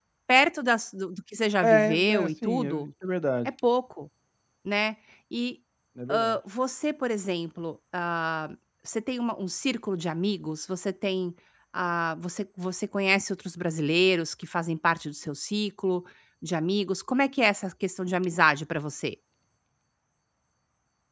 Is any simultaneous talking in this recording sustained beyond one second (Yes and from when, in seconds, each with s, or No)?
Yes, from 1.6 s